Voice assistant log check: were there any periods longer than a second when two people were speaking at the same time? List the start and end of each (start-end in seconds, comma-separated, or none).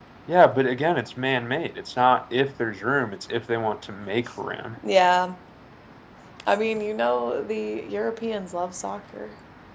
none